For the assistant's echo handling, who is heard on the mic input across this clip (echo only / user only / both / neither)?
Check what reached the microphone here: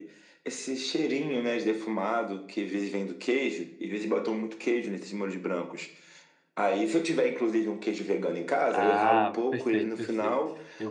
both